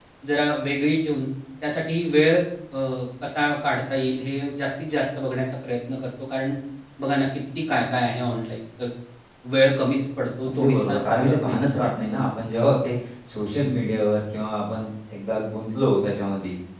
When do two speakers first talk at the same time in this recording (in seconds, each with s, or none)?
10.4 s